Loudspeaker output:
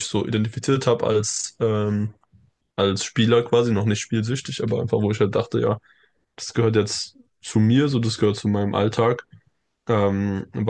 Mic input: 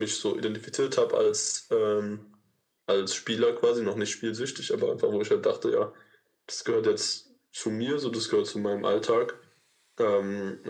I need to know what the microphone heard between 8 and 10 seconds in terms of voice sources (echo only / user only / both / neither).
echo only